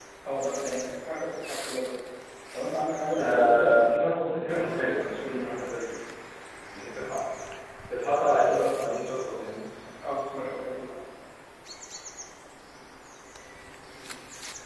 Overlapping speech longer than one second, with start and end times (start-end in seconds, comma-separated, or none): 3.1-5.5